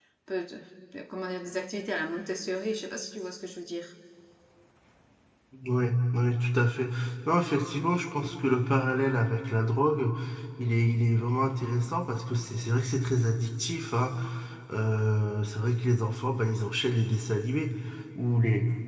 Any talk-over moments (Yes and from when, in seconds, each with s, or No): No